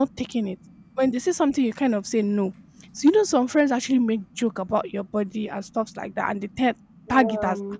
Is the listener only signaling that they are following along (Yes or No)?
Yes